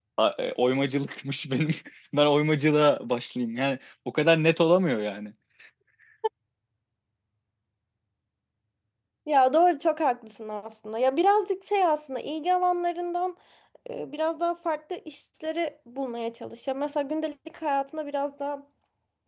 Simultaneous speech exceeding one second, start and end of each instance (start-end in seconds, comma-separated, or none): none